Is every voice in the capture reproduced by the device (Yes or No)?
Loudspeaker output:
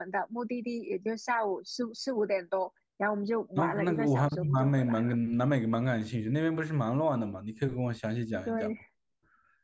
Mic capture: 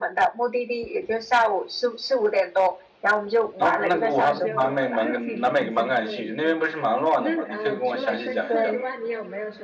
No